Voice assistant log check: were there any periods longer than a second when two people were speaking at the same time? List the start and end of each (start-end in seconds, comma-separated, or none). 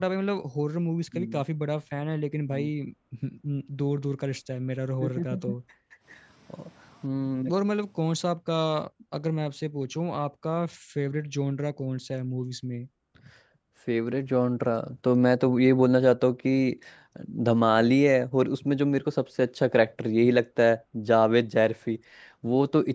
none